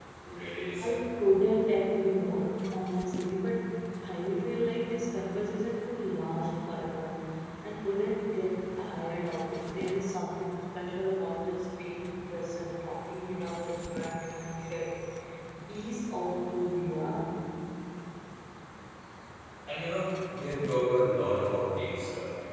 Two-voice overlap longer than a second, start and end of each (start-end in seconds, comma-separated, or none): none